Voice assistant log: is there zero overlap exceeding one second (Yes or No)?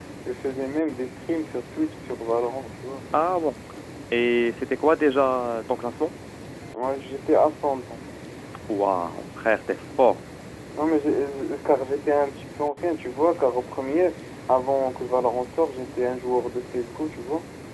Yes